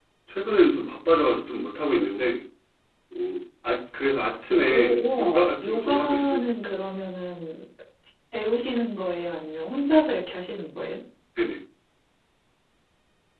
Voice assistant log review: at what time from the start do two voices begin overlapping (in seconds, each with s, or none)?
4.5 s